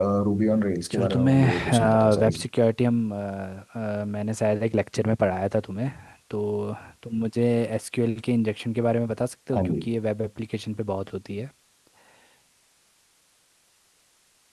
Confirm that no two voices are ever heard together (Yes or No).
No